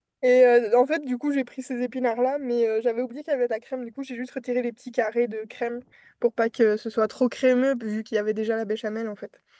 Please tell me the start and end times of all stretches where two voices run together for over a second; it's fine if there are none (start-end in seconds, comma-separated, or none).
none